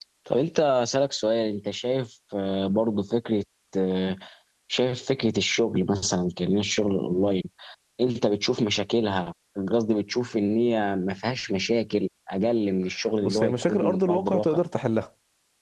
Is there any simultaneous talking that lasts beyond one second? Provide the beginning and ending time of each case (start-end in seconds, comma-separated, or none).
13.2-14.6